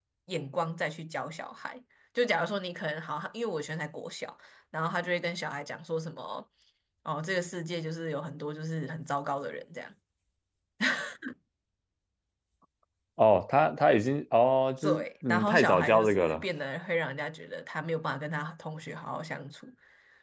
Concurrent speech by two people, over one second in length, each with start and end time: 14.8-16.4

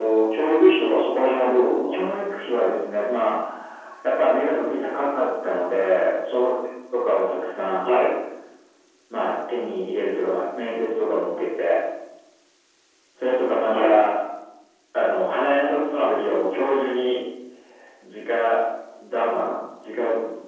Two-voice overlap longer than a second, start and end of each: none

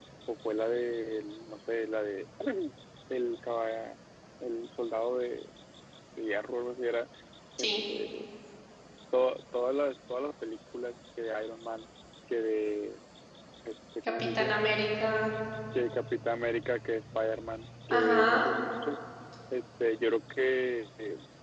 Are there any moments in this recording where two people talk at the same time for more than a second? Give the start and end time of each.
none

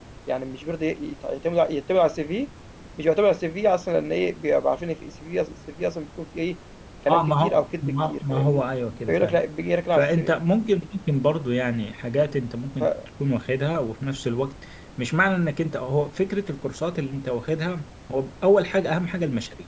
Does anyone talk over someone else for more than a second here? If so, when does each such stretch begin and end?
7.1-8.6

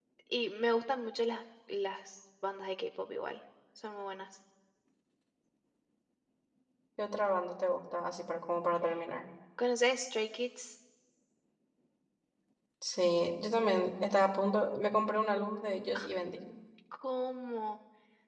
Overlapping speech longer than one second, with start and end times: none

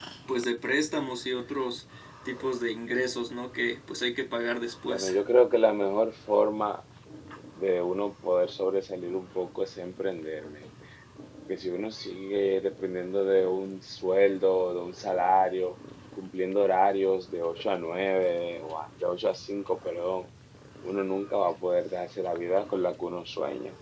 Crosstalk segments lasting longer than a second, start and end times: none

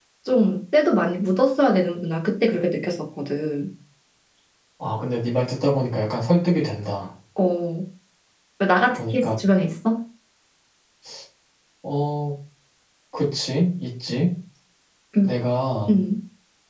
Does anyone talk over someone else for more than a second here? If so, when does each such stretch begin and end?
none

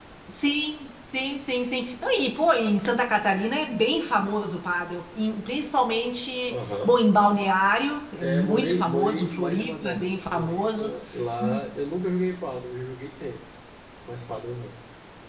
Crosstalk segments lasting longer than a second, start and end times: 8.2-10.9

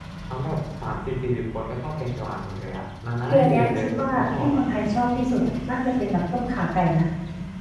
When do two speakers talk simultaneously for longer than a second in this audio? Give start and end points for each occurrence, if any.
3.3-4.6

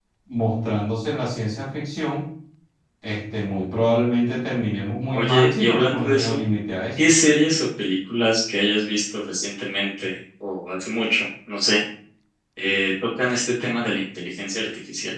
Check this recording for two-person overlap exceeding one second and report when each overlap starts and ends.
5.1-6.4

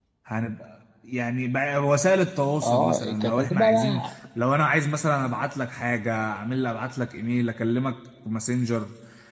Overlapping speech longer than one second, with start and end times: 2.6-4.1

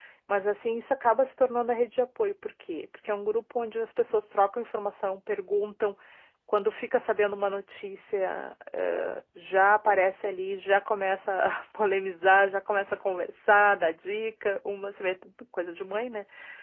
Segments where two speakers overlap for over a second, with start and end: none

